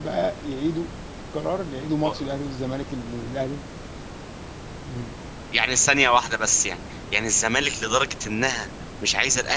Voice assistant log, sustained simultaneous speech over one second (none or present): none